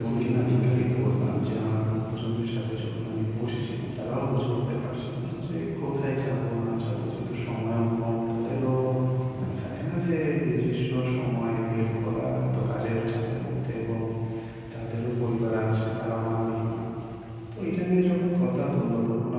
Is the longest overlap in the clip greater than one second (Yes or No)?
Yes